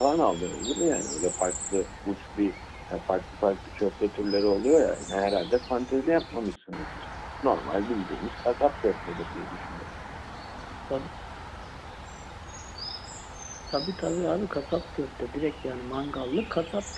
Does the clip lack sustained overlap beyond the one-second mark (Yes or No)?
Yes